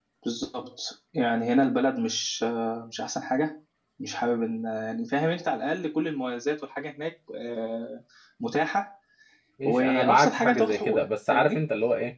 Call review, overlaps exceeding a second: present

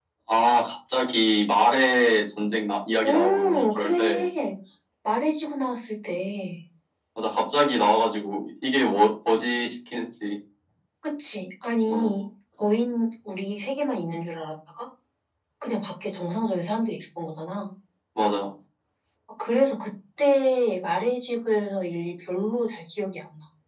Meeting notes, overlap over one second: present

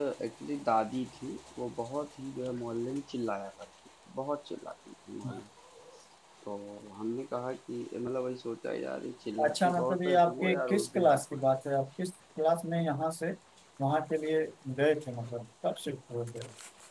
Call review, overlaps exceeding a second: present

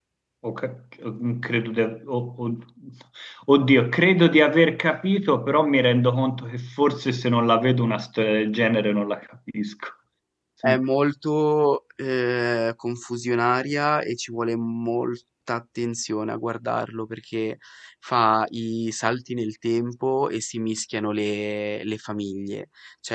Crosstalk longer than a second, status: none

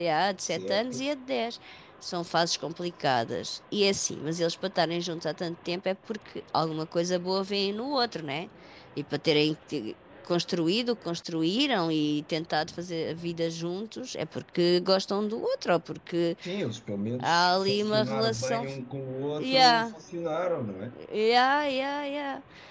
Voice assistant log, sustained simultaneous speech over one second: present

